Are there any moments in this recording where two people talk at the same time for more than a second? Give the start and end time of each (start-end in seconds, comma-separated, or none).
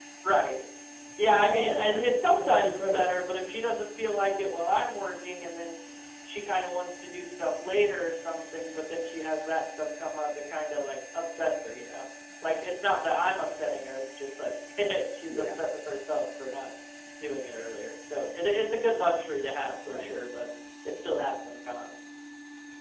1.5-3.1